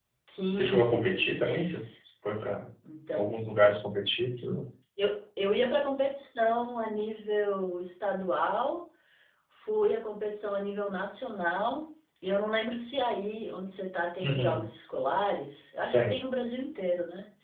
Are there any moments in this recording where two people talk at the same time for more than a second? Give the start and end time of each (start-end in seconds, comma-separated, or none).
0.5-1.8